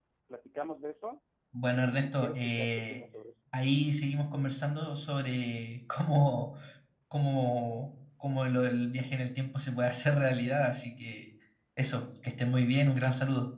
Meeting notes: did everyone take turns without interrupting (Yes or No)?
No